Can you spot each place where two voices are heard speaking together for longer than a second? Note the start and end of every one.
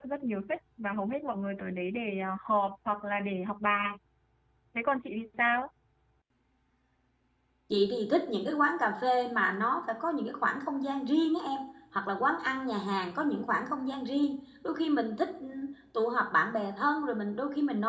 none

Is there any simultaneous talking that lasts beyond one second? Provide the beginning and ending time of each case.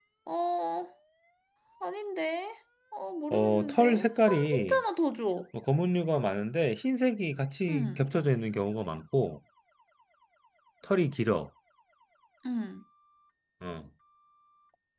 3.3-4.8

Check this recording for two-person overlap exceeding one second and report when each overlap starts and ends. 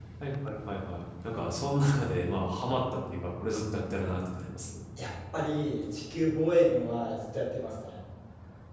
none

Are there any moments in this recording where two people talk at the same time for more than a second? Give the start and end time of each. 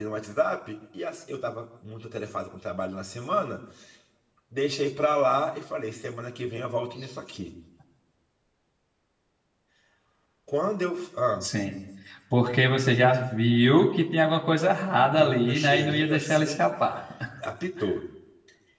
15.2-16.7

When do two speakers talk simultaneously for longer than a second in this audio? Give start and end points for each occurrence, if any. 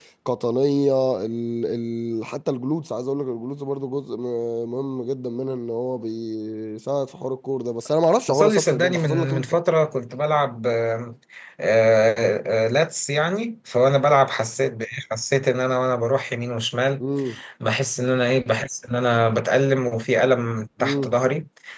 8.3-9.5

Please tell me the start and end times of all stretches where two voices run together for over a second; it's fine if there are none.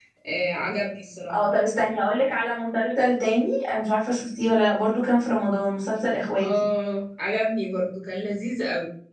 none

